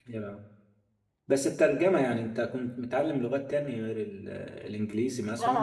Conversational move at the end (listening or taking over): taking over